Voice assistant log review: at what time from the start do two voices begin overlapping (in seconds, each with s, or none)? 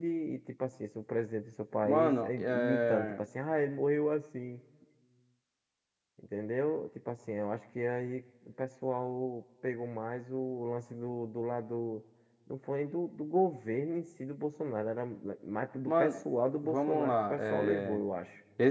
1.8 s